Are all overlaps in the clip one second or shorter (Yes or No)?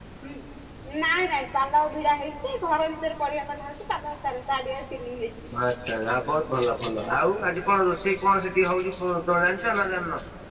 Yes